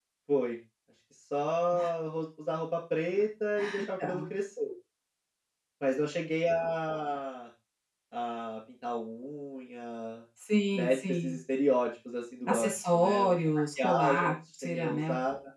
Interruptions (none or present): present